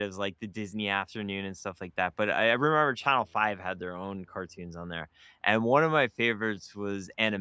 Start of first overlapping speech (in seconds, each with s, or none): none